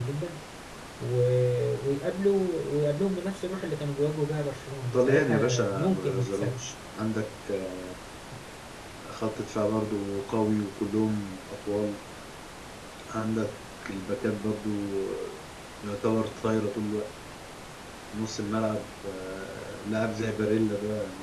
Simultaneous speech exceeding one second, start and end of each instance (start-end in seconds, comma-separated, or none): 4.9-6.6